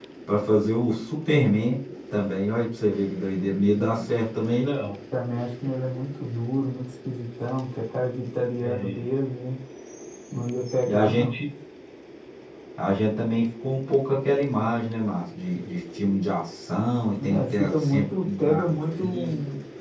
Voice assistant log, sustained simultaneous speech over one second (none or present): present